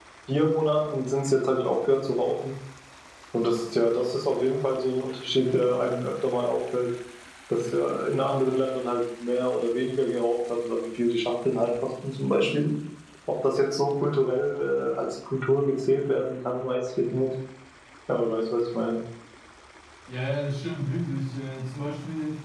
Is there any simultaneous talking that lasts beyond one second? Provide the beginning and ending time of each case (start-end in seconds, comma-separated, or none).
none